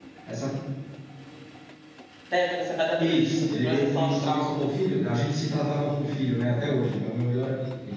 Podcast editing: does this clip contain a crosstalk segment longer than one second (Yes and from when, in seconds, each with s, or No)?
Yes, from 3.0 s